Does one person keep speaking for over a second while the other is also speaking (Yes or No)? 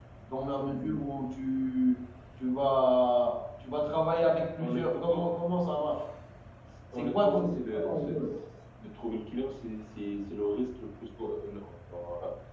Yes